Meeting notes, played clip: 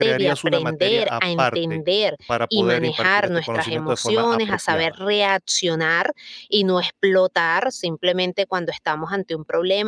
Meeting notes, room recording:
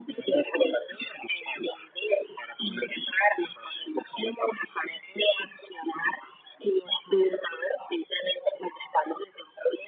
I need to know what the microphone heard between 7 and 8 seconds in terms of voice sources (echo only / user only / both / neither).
echo only